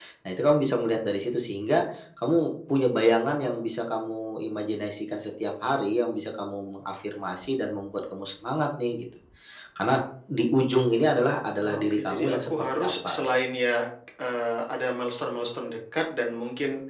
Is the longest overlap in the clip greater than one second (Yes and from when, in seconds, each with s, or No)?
Yes, from 11.6 s